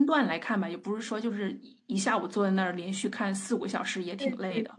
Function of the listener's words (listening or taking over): taking over